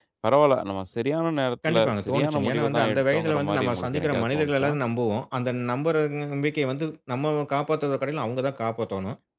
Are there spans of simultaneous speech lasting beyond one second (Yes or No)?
Yes